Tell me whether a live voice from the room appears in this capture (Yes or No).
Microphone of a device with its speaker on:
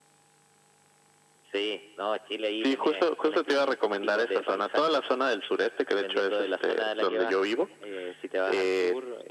No